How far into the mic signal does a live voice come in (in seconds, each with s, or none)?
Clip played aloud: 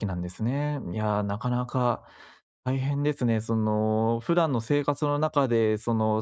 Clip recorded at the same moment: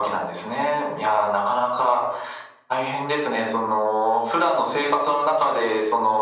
none